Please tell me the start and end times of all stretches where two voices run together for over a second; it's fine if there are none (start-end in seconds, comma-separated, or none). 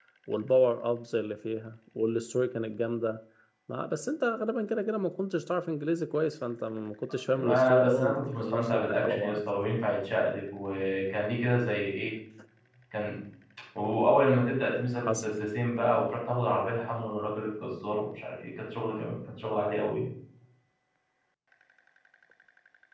7.3-9.4